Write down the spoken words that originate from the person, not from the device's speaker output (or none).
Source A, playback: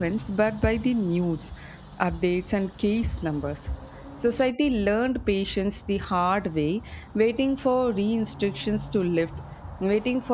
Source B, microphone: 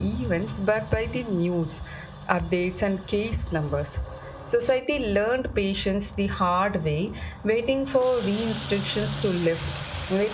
none